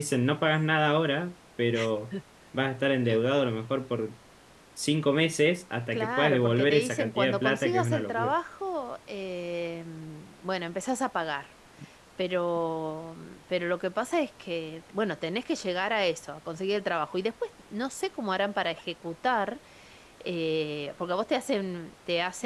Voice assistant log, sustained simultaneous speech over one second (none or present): present